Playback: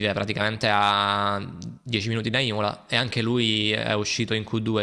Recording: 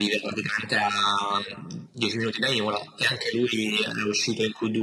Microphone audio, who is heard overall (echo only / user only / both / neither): echo only